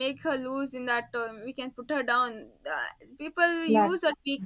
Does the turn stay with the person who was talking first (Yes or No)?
Yes